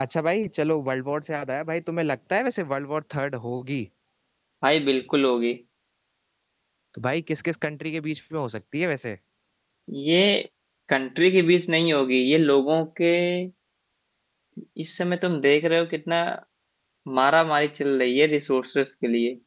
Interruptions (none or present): none